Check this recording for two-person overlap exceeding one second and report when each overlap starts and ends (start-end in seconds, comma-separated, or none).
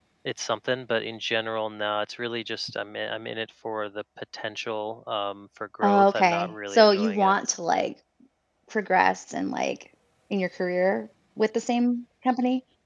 5.8-7.4